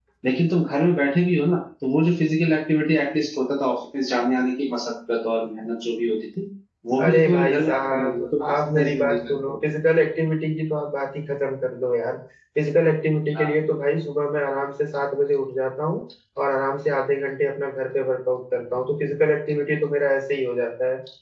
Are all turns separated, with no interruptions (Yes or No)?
No